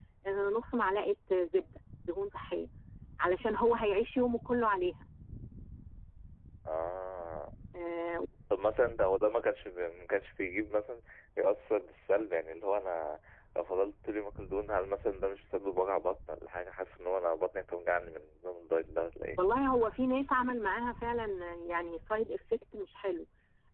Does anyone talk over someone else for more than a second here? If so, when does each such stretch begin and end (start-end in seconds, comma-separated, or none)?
none